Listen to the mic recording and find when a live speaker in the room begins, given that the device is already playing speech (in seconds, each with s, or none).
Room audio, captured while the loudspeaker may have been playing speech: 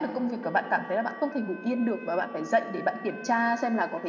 none